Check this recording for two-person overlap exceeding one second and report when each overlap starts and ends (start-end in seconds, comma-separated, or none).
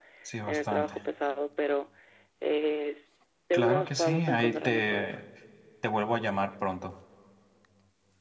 3.5-5.2